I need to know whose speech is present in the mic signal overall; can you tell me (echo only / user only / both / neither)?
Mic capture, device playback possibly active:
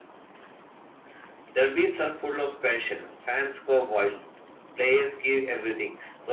echo only